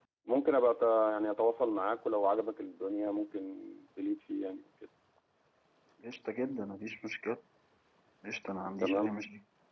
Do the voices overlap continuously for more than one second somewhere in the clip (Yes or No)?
No